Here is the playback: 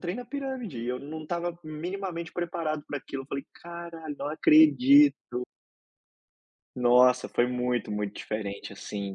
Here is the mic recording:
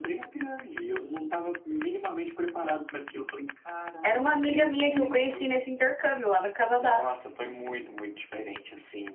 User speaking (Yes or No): Yes